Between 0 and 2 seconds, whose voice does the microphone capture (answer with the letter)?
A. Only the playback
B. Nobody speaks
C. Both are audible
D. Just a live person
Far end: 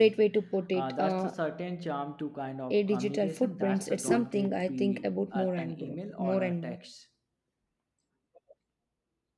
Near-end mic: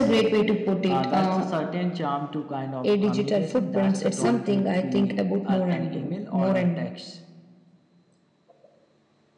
A